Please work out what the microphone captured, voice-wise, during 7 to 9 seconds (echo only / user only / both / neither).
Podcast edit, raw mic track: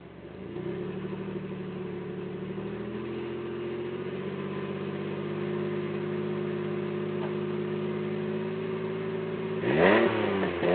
neither